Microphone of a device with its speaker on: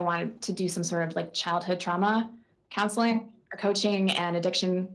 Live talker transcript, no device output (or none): none